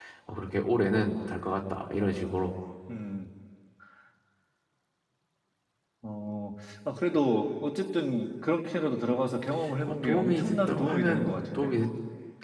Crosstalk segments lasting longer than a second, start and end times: 9.9-11.8

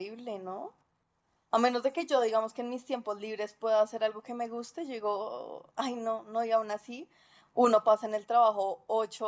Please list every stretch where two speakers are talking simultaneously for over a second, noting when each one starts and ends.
none

